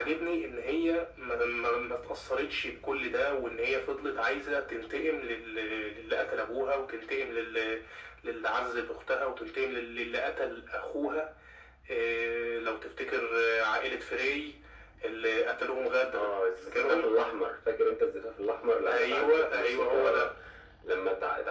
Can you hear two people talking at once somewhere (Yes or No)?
Yes